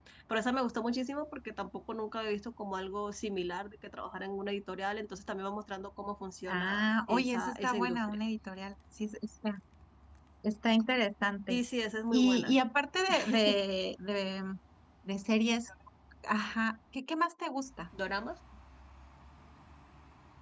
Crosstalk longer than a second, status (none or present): present